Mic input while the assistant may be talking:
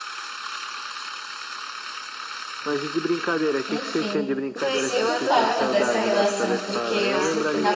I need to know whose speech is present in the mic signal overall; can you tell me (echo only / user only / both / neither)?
both